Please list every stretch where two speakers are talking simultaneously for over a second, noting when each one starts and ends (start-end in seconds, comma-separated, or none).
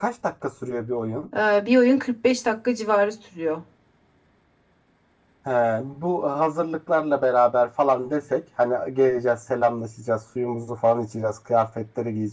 none